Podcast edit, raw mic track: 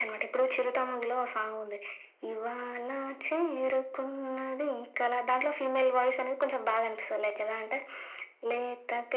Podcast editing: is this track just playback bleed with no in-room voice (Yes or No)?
Yes